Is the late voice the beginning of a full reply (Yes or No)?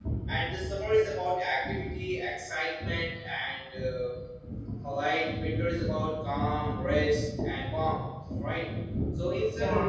No